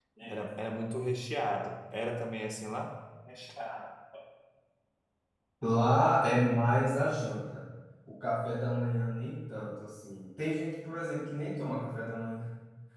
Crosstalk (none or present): none